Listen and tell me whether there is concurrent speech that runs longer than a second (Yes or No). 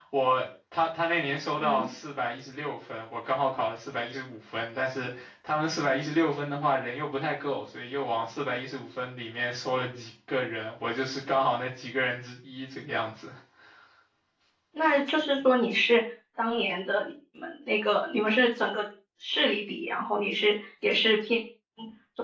No